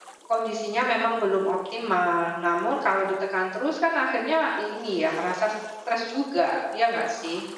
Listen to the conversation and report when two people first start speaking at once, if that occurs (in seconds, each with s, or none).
none